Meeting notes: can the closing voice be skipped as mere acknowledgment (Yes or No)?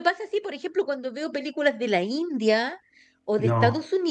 Yes